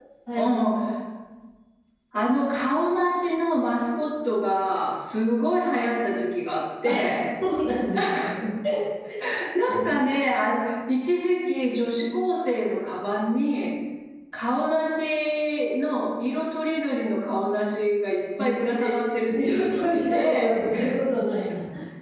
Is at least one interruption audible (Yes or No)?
Yes